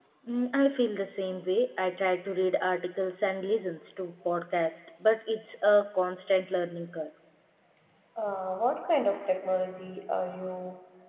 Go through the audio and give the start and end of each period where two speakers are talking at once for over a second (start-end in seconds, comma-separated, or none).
none